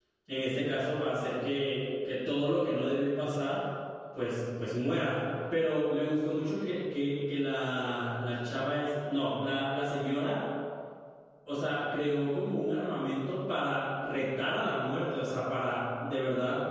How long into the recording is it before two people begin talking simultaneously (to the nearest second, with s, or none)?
none